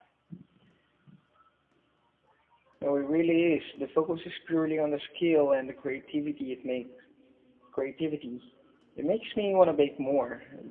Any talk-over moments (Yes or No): No